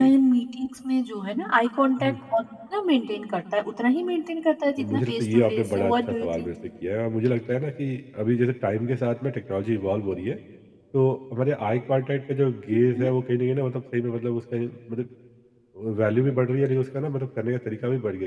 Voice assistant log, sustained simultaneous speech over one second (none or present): present